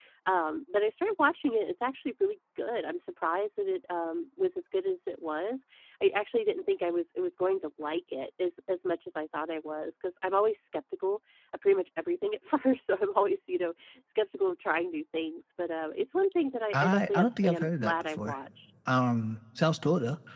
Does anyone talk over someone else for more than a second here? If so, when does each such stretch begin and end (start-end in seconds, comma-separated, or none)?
16.7-18.4